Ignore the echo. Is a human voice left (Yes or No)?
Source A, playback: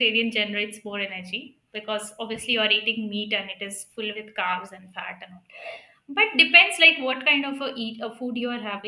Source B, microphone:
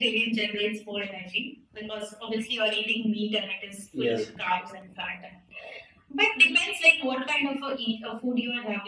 Yes